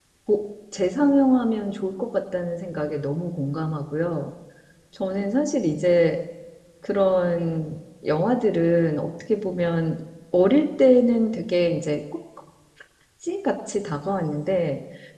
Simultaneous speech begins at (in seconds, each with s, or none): none